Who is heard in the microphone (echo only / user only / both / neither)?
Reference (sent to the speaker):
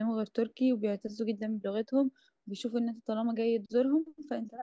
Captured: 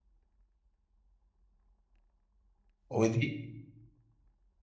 user only